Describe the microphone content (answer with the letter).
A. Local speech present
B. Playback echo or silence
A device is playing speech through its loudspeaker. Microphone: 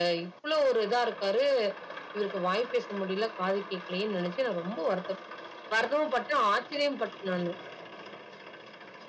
B